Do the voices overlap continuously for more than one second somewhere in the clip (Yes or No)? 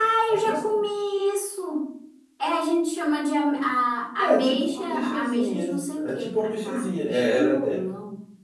Yes